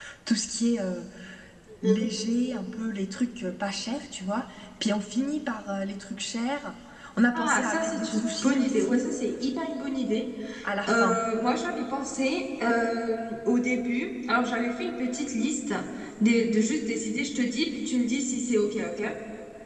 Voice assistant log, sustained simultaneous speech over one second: present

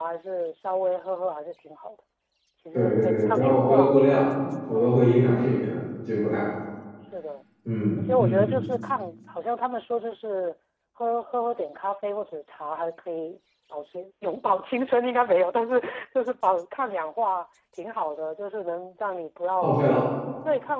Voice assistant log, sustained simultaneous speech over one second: present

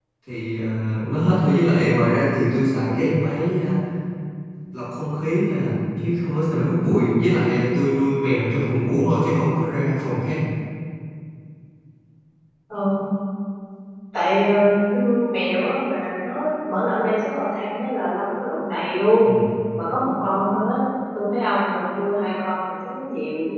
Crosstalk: none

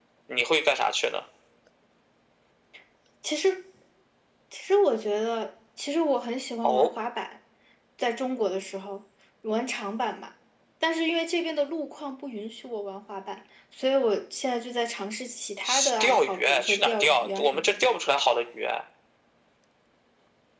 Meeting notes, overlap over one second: present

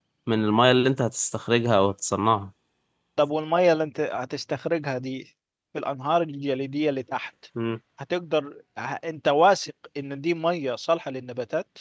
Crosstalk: none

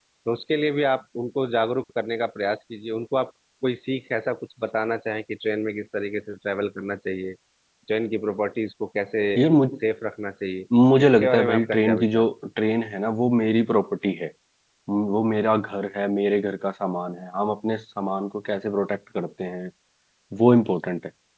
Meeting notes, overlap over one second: present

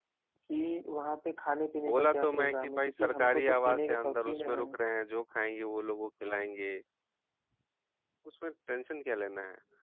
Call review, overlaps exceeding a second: present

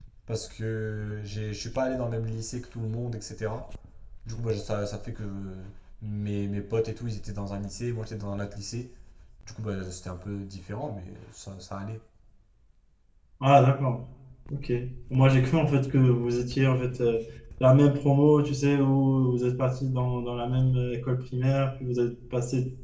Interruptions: none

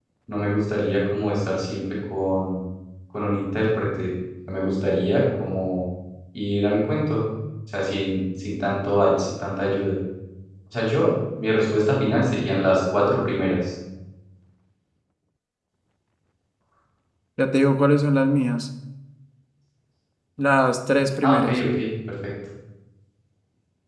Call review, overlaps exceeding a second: none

